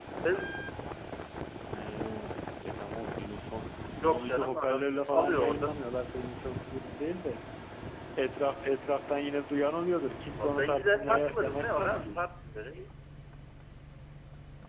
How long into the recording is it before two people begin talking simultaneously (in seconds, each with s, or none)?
4.0 s